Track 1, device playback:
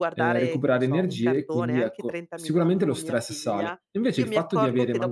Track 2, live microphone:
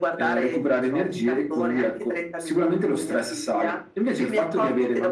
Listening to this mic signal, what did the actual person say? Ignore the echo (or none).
none